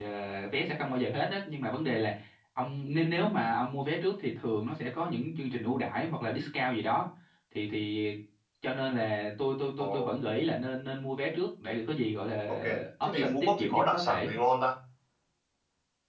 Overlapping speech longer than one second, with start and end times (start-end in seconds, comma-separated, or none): 13.1-14.3